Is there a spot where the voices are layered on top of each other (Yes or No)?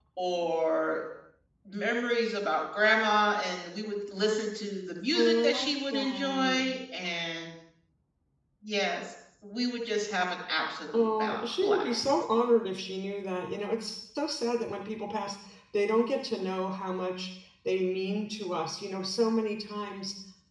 Yes